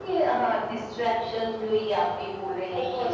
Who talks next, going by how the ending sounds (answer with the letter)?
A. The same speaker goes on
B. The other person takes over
A